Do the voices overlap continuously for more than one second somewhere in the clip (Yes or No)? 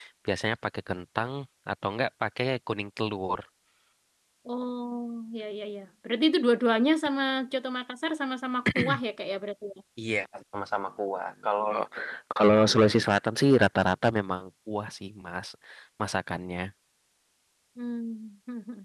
No